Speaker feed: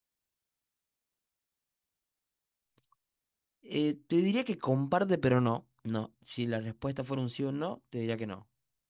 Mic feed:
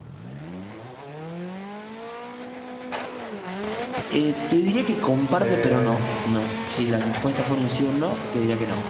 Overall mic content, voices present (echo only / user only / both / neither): both